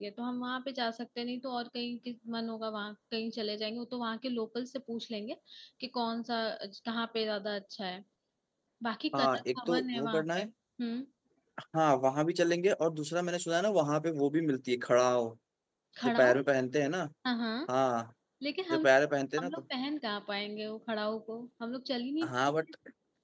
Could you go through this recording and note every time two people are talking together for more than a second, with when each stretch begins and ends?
9.1-10.5

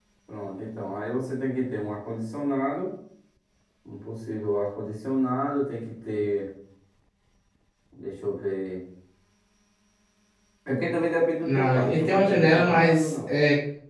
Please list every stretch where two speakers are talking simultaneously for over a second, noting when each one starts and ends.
11.4-13.3

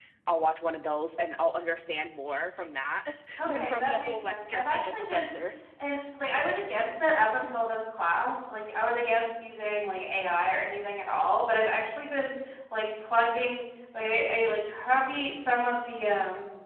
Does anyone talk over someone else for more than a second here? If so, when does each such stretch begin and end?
3.5-5.3

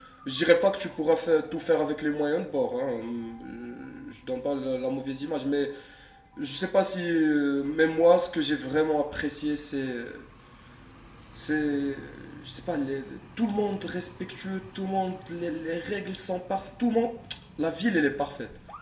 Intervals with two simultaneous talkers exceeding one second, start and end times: none

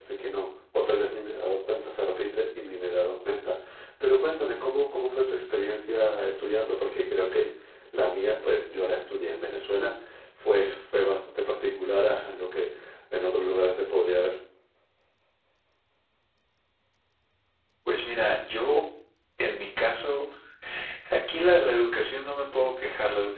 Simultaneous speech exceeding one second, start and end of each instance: none

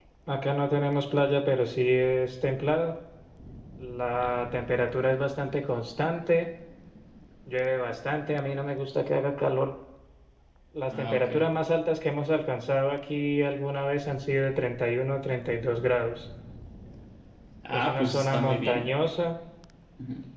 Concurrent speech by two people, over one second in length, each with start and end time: 17.7-18.9

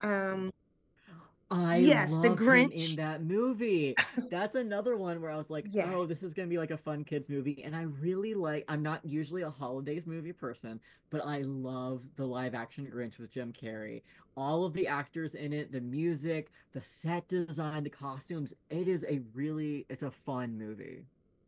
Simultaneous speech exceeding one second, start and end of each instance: 1.7-3.0

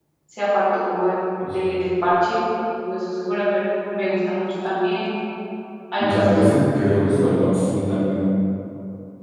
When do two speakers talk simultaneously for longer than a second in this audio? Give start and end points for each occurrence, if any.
none

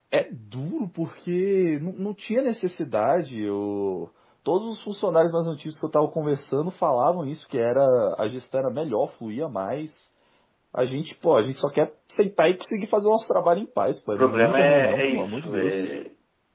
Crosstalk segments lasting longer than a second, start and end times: 14.1-15.8

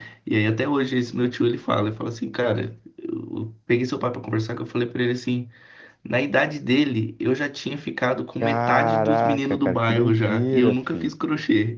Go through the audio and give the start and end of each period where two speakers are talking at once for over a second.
8.4-11.1

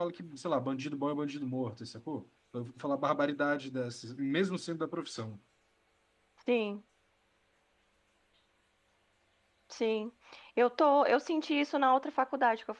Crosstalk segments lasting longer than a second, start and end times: none

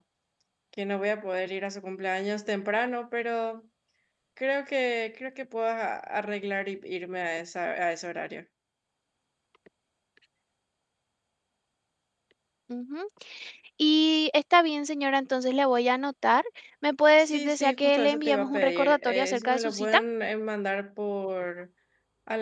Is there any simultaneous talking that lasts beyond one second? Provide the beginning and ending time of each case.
17.2-20.0

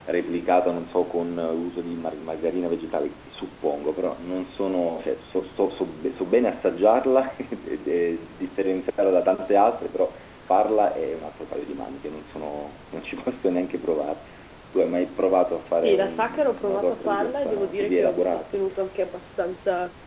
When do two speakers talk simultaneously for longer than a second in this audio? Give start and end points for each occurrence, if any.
15.8-18.6

